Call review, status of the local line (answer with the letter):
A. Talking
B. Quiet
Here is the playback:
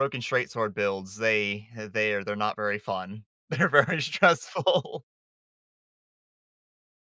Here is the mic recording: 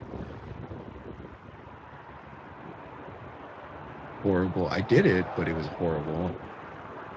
A